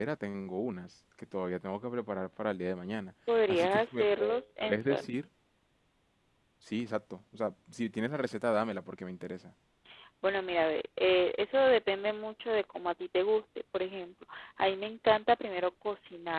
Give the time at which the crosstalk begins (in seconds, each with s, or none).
3.3 s